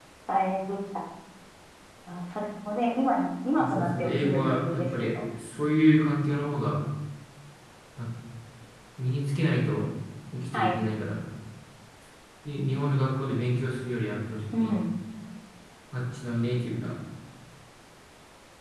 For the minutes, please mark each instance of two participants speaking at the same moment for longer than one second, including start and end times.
3.6-5.2

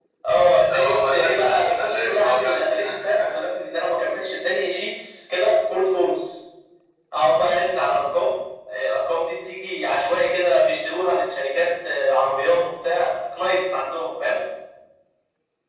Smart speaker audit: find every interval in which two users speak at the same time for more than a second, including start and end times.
0.7-2.6

